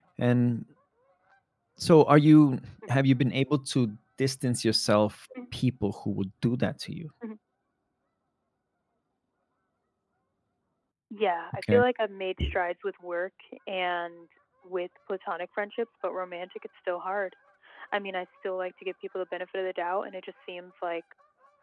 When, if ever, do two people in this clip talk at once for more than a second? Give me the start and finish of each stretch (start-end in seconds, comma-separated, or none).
none